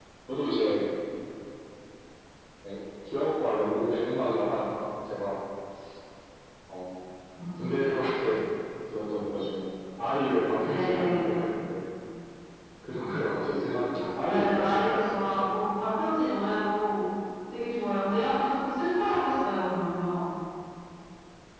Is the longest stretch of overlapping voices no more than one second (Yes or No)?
No